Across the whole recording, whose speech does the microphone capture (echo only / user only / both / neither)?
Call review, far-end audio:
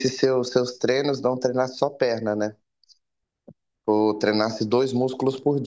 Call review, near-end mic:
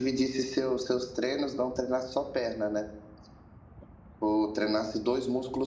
echo only